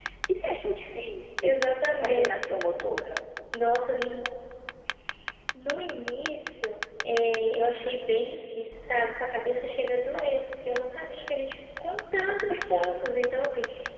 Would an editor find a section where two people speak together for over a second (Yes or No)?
No